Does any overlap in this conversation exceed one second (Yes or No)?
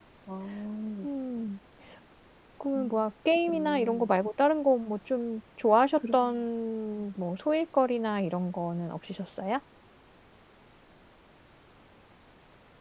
No